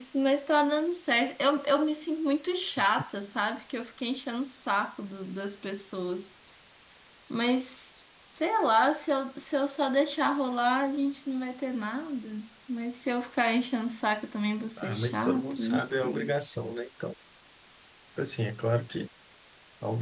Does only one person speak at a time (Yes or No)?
No